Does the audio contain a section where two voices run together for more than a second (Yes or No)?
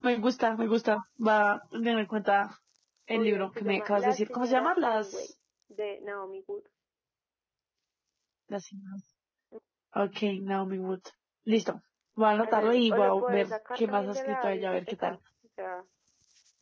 Yes